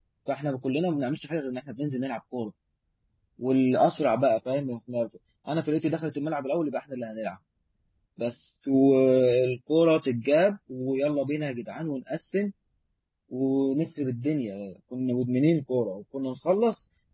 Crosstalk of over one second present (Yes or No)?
No